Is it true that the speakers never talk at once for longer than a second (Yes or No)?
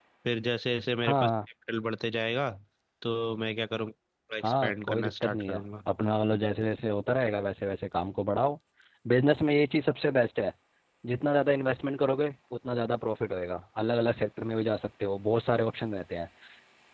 No